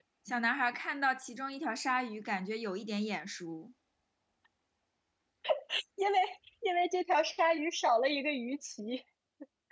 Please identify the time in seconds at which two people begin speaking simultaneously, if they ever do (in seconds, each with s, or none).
none